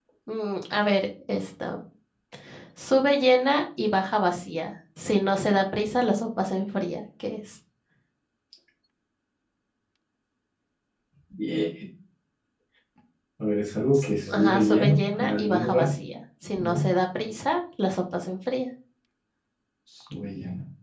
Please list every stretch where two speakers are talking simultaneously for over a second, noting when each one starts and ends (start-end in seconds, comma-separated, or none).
13.9-16.0